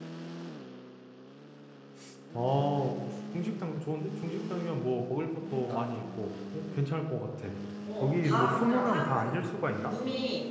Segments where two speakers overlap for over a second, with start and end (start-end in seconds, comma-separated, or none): 8.0-9.4